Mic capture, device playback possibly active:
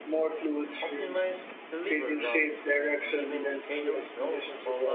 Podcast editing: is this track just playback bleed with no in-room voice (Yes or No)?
No